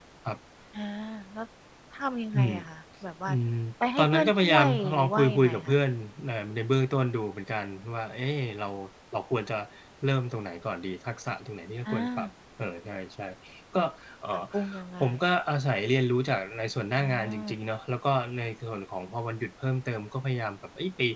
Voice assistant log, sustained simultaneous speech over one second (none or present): present